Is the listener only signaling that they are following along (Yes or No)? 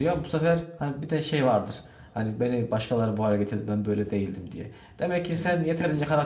Yes